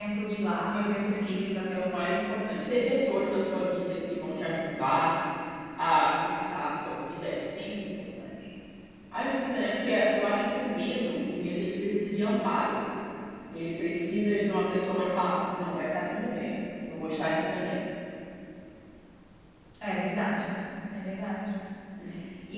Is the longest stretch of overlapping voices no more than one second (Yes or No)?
Yes